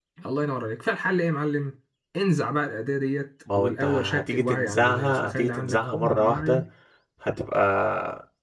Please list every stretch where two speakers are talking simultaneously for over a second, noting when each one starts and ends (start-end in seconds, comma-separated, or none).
3.5-6.6